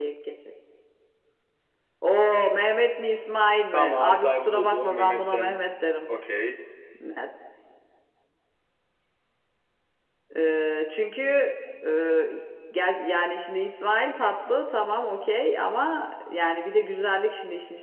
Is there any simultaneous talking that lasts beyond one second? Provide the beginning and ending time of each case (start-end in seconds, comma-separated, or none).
3.7-5.6